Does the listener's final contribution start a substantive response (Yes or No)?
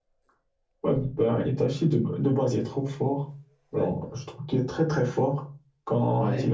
No